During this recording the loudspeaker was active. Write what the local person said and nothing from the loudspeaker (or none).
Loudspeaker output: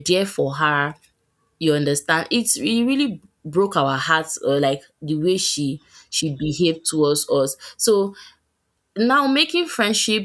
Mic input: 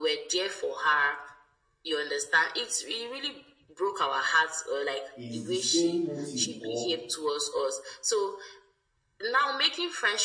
is the same motive or